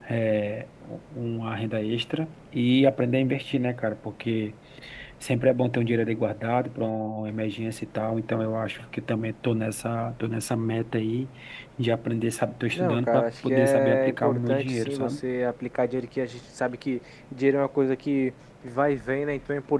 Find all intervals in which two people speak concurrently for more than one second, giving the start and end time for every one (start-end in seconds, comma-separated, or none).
12.7-15.2